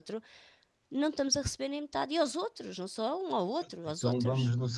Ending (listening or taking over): taking over